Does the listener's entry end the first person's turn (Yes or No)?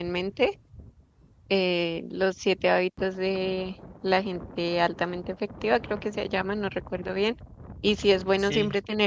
No